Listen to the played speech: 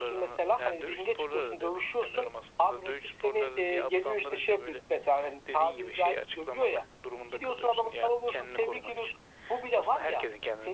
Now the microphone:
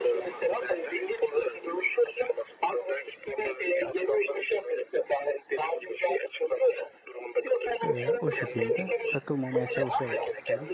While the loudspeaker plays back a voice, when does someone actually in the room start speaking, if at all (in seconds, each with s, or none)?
7.8 s